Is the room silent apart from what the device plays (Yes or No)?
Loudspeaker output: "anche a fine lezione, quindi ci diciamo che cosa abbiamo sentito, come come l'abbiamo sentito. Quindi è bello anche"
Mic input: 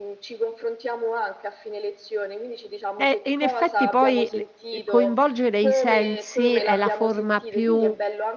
No